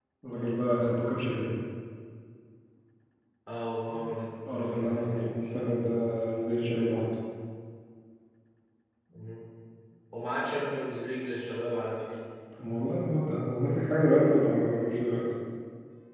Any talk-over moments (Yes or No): Yes